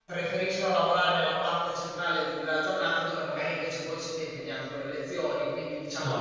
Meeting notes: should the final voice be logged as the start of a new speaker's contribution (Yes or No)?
Yes